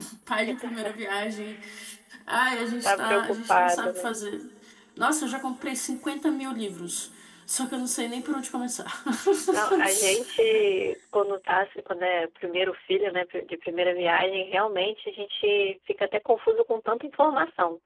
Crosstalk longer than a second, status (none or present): present